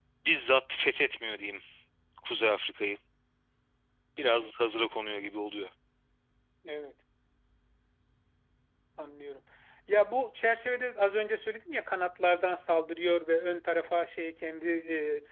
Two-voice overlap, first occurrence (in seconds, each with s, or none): none